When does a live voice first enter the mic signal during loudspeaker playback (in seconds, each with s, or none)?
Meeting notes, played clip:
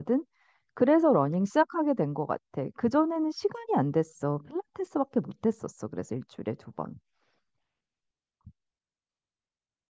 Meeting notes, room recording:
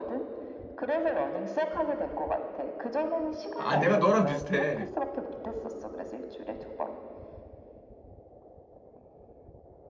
3.5 s